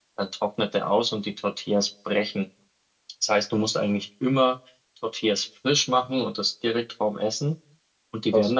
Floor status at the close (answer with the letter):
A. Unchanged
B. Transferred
A